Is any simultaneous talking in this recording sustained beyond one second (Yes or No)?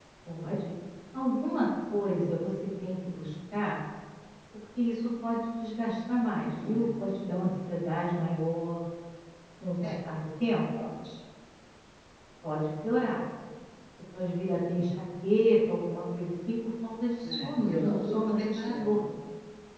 Yes